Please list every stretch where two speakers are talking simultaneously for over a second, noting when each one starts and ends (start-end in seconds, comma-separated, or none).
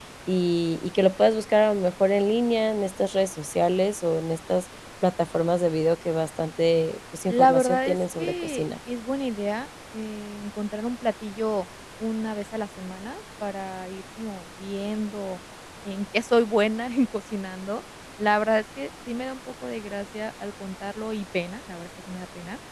7.3-8.6